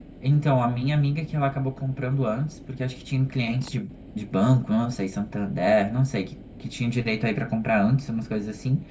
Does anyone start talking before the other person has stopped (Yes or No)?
No